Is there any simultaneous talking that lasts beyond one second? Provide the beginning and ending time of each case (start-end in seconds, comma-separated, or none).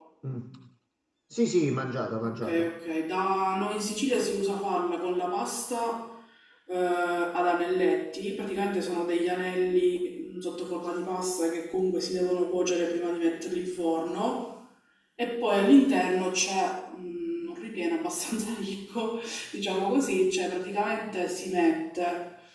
none